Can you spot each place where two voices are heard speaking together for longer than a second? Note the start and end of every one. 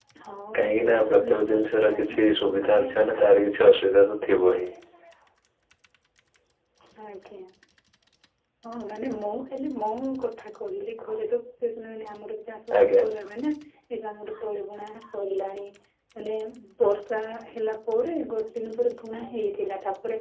0.8-2.2

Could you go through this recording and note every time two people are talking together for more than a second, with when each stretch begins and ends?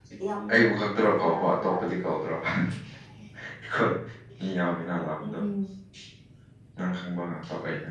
0.5-1.8

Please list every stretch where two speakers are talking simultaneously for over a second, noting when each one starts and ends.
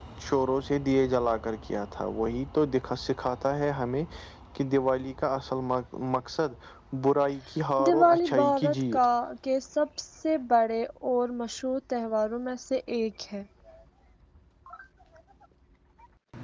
7.8-9.1

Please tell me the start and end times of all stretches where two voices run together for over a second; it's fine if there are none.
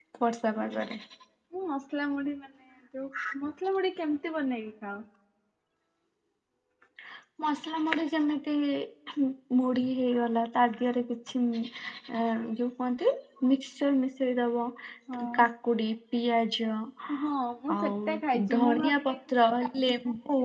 17.8-19.1

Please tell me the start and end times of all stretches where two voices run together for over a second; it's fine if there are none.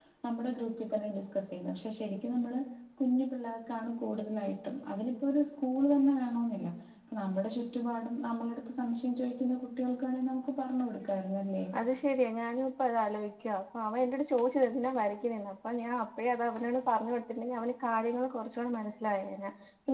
none

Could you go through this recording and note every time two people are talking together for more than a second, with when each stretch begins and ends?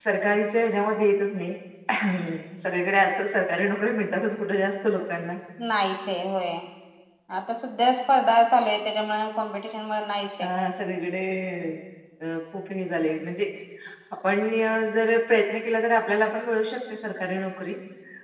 none

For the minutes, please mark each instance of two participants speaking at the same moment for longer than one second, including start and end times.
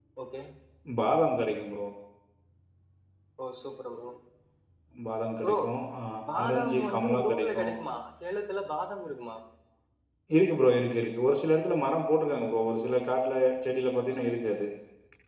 6.4-7.7

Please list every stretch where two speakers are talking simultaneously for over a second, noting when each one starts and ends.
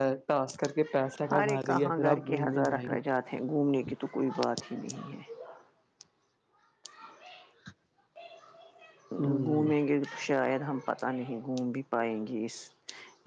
1.3-3.0

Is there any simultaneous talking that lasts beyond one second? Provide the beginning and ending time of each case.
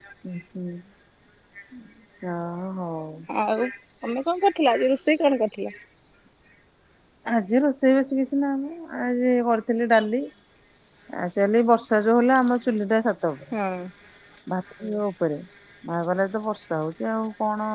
none

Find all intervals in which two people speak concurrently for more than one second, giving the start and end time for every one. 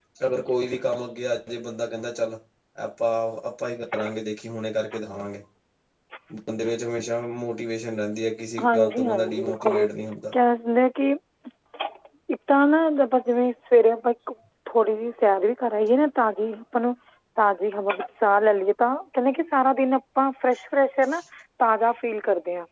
8.6-9.8

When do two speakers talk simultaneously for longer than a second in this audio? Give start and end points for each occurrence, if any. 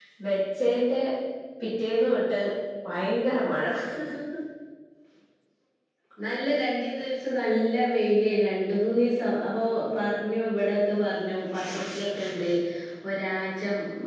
none

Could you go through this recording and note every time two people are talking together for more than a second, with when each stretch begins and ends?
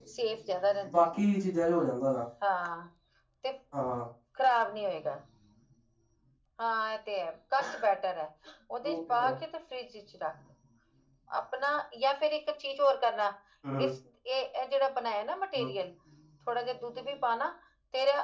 none

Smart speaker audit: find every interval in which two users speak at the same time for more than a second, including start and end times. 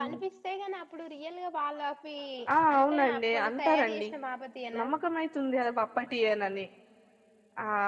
2.8-4.0

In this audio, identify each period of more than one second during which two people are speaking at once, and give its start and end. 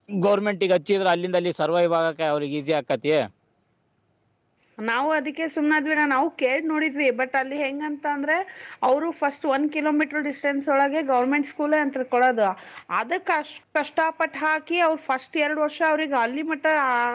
none

